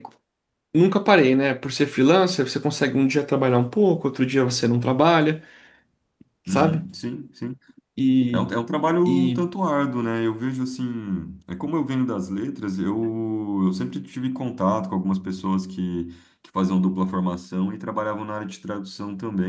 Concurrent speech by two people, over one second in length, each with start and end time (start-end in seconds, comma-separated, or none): none